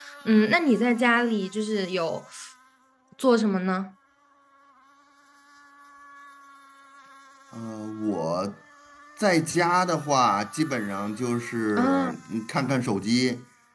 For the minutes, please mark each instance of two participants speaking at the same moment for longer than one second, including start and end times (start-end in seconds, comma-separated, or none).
none